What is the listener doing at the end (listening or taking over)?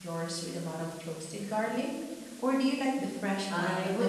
taking over